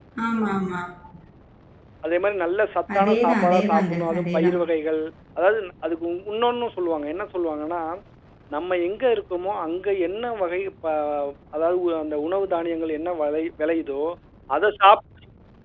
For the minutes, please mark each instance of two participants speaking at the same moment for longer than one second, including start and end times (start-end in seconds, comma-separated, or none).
3.0-4.6